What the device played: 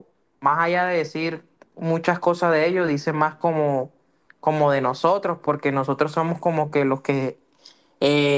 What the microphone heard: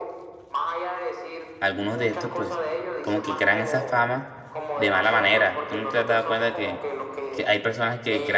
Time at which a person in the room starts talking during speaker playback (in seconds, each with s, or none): 1.6 s